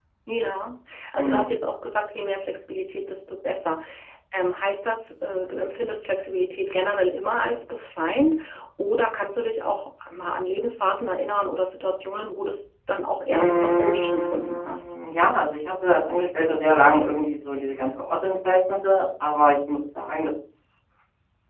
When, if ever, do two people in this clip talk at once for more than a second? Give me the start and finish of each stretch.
13.3-14.8

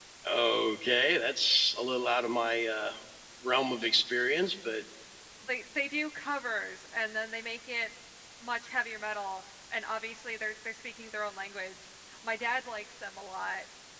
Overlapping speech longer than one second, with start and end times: none

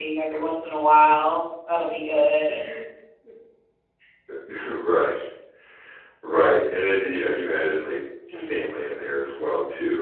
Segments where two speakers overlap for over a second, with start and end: none

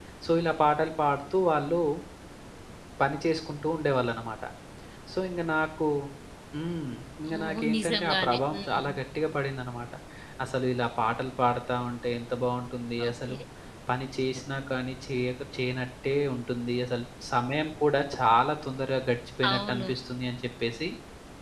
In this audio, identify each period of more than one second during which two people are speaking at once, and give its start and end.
7.4-8.9

